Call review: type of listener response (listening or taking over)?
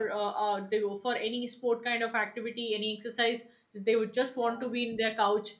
listening